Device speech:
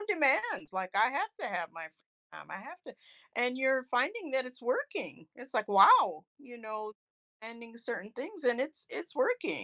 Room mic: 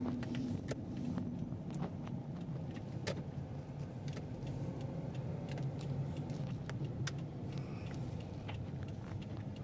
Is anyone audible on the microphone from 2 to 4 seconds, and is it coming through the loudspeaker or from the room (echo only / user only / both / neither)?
neither